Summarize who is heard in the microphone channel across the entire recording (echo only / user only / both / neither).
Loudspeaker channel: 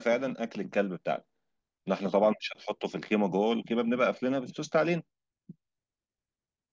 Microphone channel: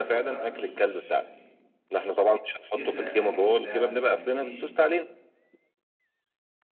both